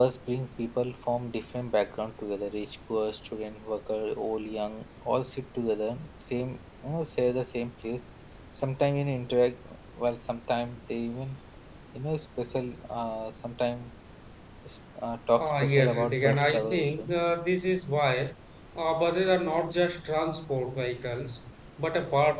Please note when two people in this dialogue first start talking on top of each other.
15.4 s

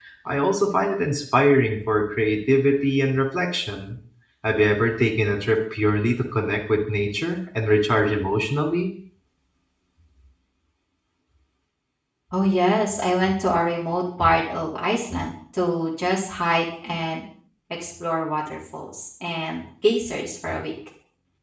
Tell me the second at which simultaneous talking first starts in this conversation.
none

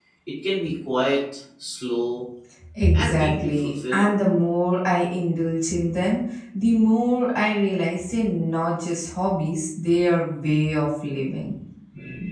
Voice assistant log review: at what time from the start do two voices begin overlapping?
2.9 s

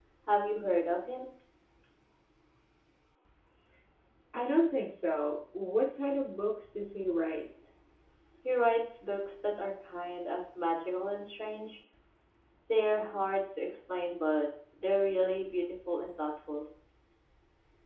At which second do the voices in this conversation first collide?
none

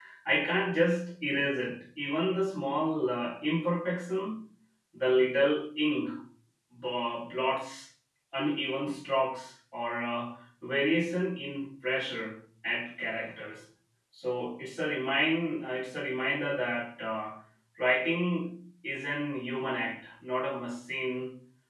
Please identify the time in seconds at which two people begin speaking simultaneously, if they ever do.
none

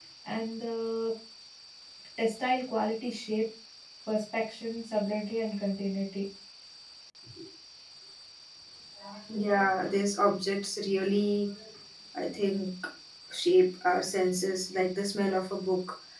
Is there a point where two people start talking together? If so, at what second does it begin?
none

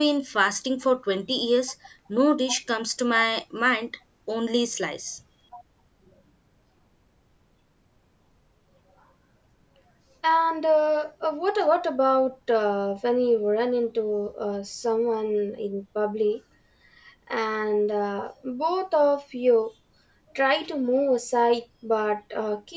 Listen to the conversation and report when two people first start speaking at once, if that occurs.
none

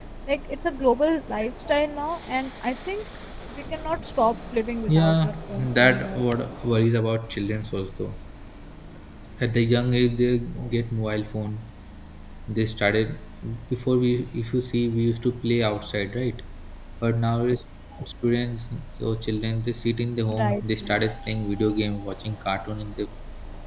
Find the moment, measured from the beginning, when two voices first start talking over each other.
4.9 s

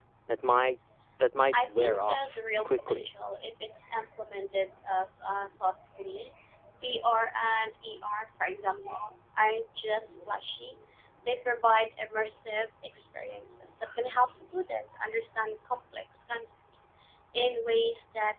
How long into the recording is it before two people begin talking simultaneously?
1.5 s

